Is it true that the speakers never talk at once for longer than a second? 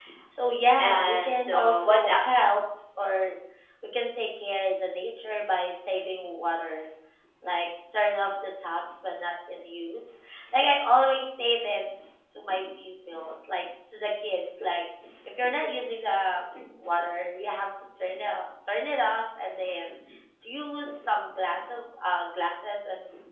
No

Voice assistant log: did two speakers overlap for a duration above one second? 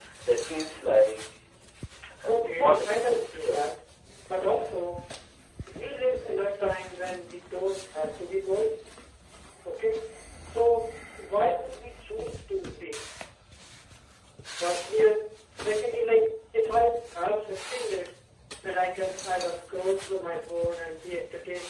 Yes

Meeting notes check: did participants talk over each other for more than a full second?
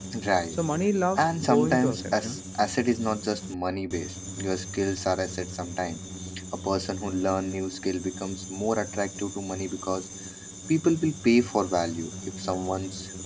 Yes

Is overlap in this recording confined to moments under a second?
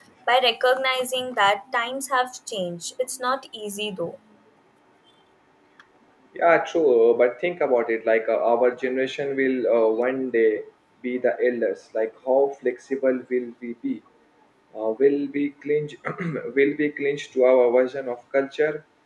Yes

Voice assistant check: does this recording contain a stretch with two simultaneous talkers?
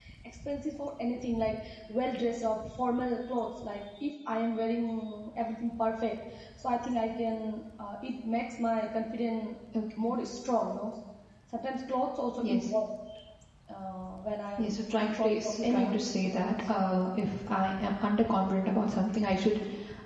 Yes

